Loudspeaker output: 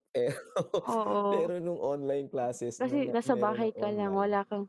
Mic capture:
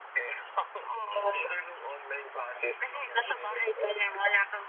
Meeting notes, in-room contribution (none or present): none